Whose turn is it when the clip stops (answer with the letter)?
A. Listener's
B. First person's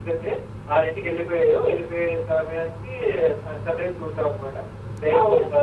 B